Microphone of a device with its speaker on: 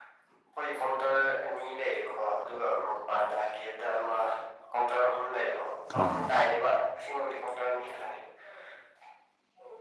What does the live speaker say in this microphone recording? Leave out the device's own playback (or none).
ꯍꯥ